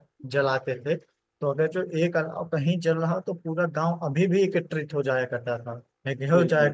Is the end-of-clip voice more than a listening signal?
No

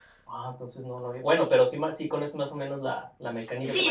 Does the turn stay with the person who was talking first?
No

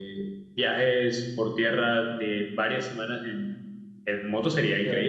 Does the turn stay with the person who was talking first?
No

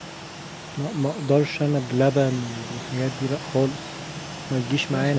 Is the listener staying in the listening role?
No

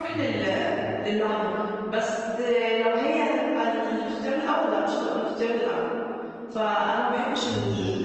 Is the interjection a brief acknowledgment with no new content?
Yes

